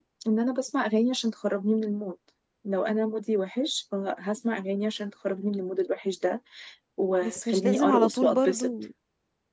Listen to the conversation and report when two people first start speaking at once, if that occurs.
7.2 s

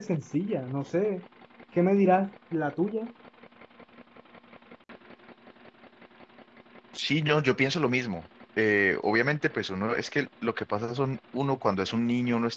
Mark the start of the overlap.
none

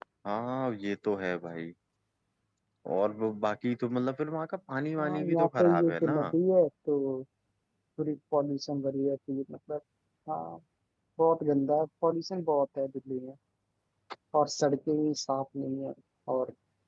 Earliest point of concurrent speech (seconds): 5.0 s

